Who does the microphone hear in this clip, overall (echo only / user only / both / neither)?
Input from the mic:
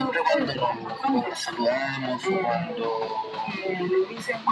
echo only